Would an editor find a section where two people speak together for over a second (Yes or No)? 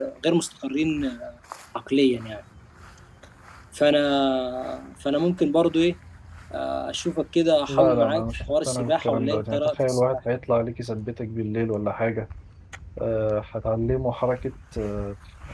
Yes